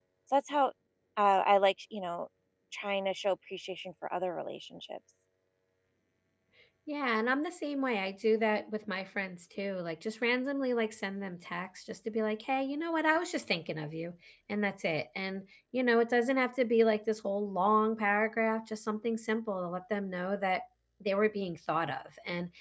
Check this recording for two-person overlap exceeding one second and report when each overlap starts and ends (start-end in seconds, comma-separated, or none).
none